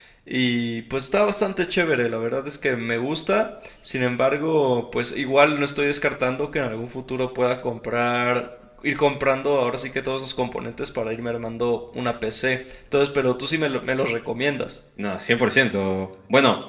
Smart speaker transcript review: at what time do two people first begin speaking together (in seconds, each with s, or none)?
none